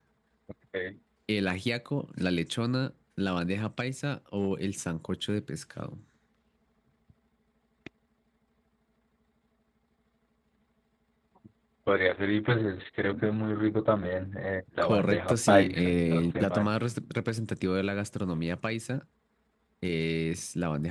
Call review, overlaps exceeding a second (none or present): present